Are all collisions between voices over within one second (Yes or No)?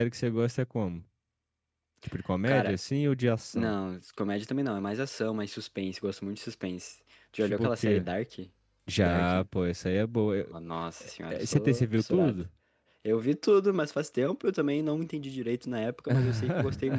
No